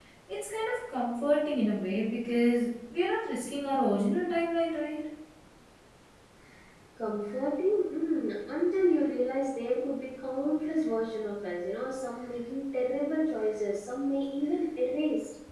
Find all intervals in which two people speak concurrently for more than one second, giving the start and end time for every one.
none

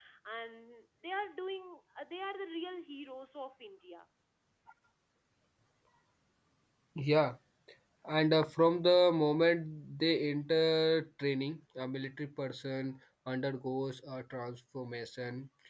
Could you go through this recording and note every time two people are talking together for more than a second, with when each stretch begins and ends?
none

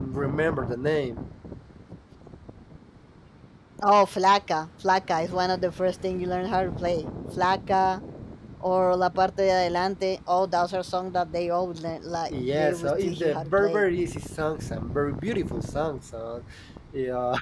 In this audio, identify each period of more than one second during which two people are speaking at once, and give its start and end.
12.4-13.8

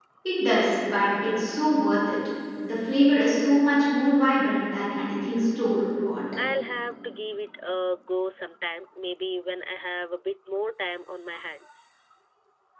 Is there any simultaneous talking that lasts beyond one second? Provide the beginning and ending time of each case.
none

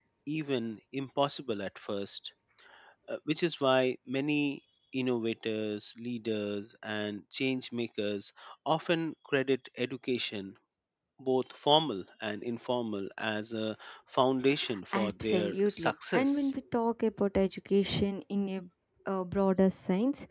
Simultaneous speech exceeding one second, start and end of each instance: 14.9-16.5

